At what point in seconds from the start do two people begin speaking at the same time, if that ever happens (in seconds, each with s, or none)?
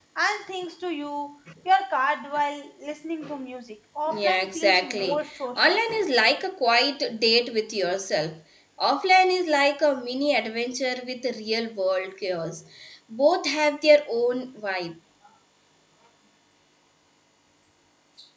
4.1 s